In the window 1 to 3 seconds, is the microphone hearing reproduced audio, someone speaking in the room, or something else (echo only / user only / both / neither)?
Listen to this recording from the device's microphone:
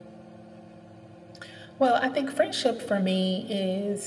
echo only